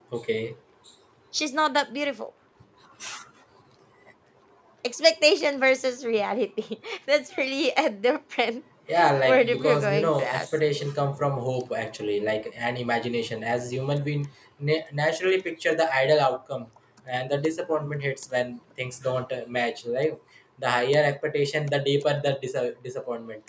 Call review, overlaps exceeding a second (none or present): present